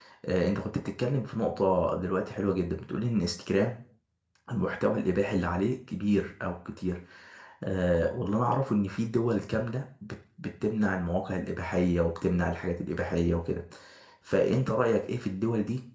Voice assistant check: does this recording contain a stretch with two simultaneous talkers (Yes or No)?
No